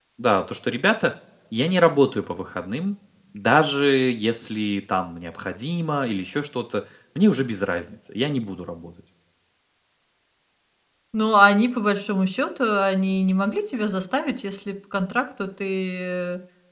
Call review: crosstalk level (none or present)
none